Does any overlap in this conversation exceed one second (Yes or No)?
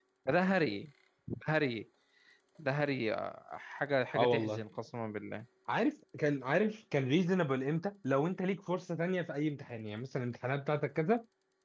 No